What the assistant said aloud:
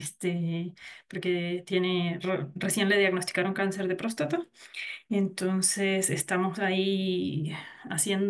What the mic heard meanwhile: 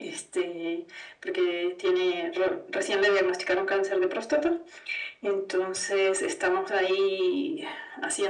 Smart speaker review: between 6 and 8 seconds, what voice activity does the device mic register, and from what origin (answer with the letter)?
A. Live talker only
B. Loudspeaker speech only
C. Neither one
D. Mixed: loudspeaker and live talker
B